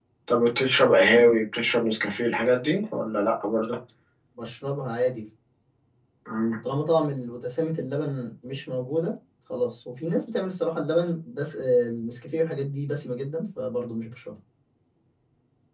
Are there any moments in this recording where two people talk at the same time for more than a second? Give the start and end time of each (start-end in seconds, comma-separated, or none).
none